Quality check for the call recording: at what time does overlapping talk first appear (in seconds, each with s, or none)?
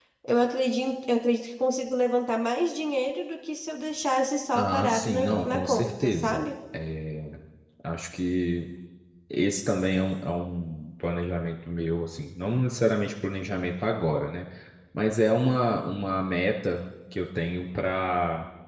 4.5 s